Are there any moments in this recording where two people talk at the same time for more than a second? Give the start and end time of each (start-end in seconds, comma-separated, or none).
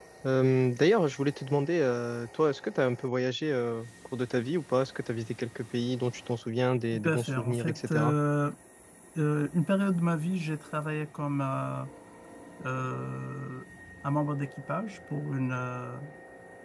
6.9-8.2